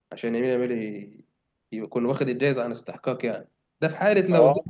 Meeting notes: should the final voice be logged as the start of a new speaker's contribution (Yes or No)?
No